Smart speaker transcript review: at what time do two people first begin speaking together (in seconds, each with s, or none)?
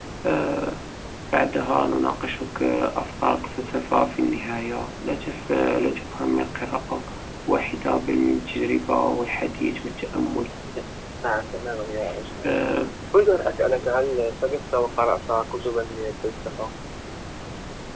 none